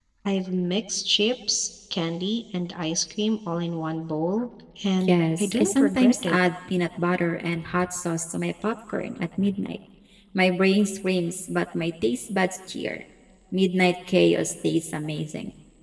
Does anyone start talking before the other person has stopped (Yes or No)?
Yes